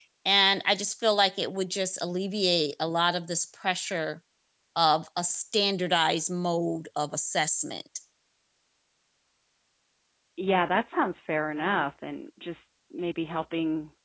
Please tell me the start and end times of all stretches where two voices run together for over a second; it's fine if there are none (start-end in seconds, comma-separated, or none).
none